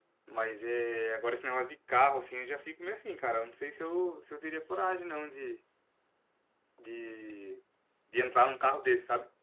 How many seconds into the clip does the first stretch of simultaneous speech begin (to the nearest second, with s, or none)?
none